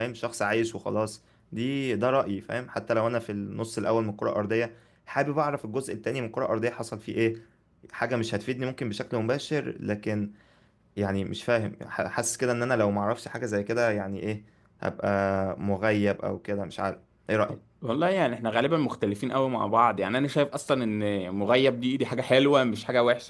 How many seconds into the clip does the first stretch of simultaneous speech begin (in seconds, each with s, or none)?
none